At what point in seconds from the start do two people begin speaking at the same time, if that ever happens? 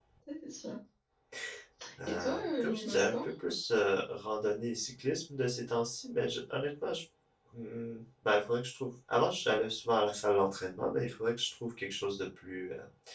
2.1 s

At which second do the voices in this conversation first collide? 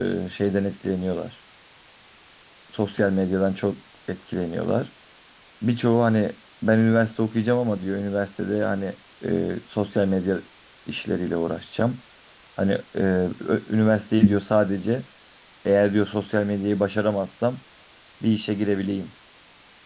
none

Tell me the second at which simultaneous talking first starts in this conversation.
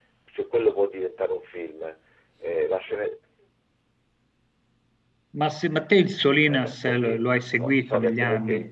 6.5 s

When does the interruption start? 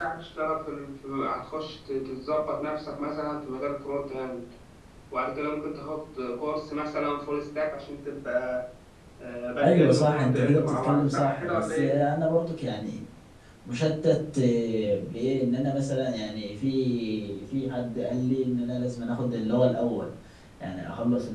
9.6 s

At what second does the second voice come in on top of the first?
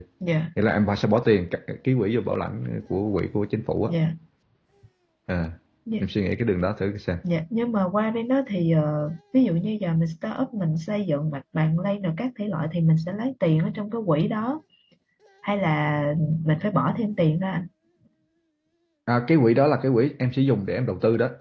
none

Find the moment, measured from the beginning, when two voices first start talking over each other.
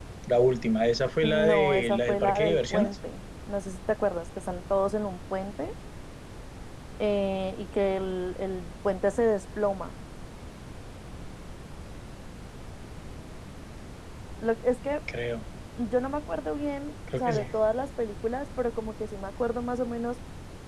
1.2 s

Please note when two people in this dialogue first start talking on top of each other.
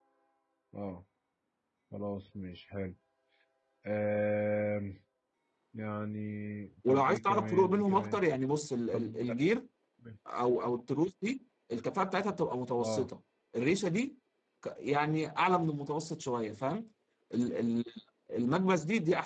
6.9 s

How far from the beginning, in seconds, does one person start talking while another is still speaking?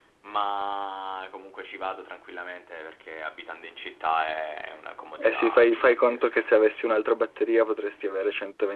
5.2 s

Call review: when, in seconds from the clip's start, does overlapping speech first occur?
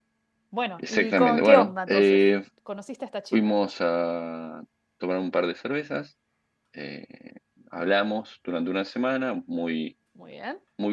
0.8 s

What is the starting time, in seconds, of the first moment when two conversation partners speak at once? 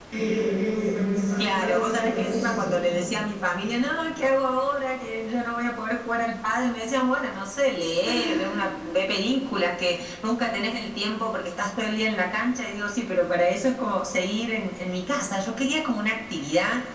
1.4 s

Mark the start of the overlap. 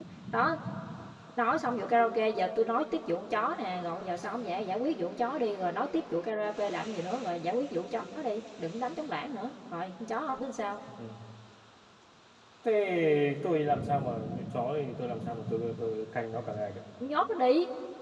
none

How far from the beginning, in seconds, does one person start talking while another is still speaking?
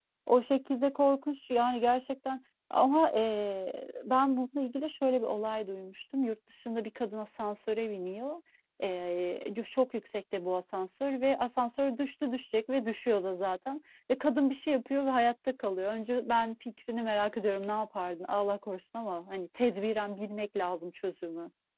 none

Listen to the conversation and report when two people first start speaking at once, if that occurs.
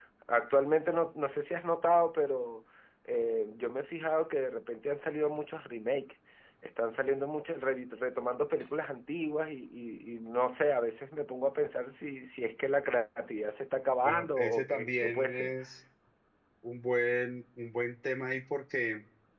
14.0 s

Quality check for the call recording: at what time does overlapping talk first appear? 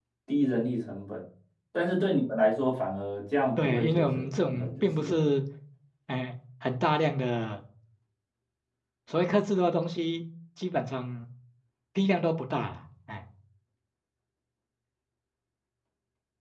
3.6 s

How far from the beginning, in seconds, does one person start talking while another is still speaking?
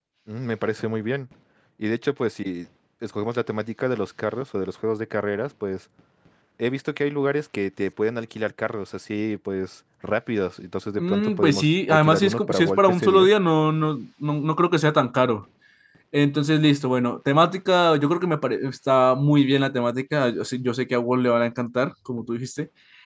11.0 s

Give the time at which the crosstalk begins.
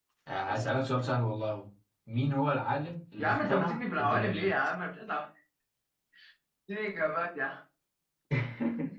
3.2 s

